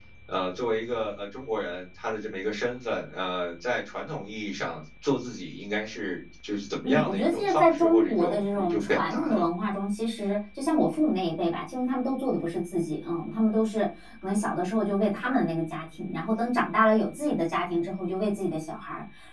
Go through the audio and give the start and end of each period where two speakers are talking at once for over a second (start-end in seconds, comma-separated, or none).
6.8-9.5